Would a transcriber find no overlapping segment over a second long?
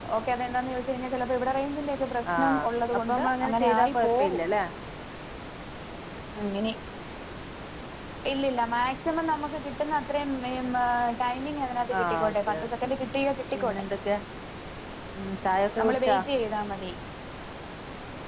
No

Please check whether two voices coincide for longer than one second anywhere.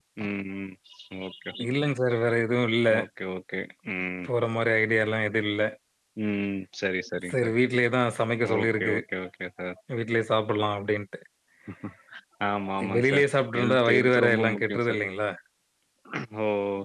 Yes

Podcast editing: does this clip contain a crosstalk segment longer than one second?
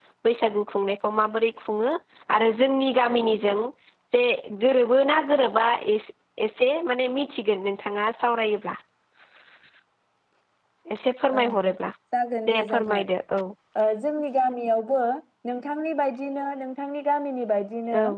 No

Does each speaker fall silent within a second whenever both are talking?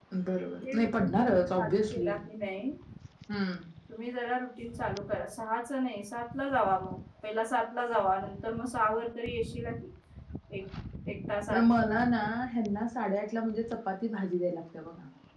No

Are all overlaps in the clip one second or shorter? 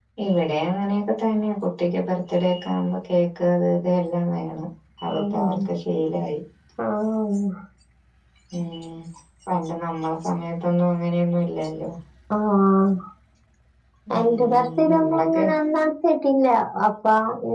No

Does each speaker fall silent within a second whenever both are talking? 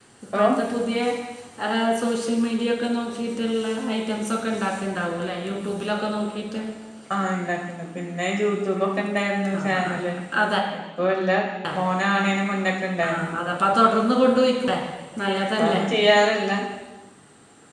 Yes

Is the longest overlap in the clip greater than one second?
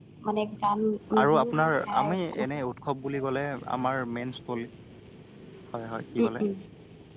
Yes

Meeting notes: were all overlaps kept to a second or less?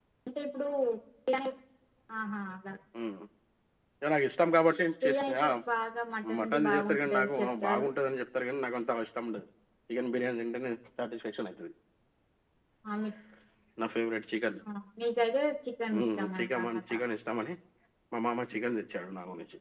No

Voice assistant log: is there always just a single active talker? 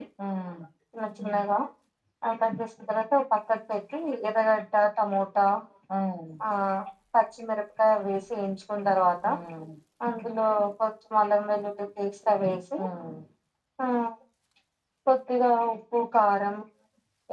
Yes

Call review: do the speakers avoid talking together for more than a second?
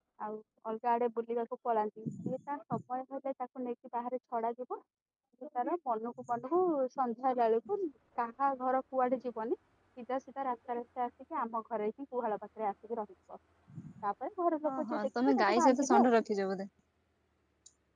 No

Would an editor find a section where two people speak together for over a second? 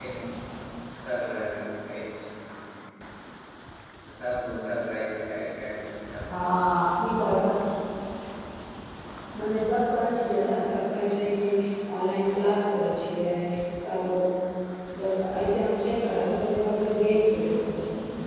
No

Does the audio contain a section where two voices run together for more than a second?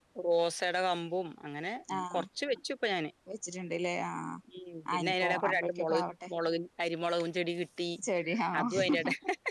Yes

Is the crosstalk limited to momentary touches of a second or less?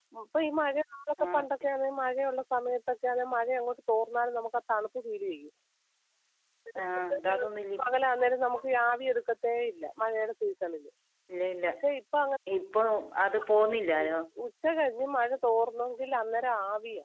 Yes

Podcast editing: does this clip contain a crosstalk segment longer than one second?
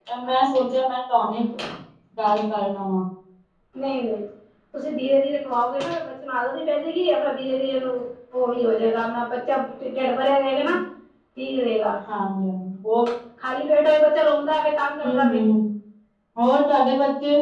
No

